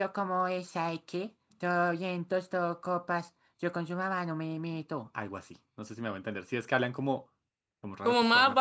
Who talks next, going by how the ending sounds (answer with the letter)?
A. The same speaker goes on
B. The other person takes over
B